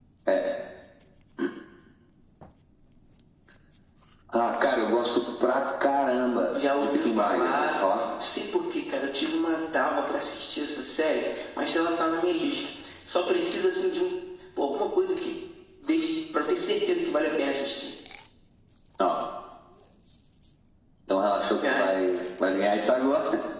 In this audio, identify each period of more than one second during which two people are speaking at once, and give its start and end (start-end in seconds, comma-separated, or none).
6.8-8.0